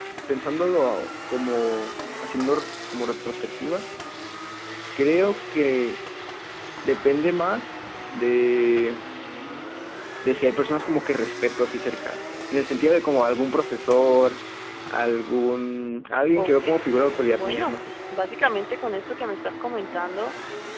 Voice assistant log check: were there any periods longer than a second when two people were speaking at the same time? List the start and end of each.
16.4-17.7

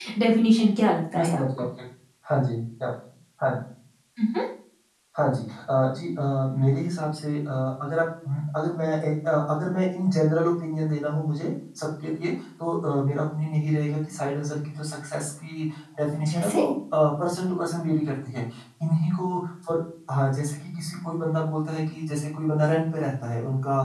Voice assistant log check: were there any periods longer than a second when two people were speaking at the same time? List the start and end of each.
none

